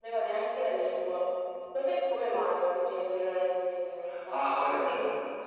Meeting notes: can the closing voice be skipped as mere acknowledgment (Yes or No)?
No